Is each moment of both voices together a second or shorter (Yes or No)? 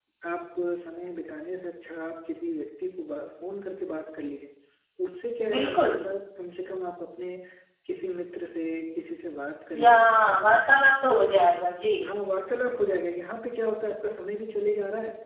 Yes